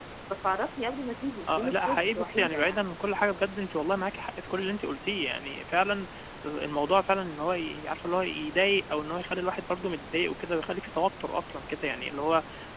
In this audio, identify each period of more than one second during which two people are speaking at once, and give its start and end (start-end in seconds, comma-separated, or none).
1.5-2.9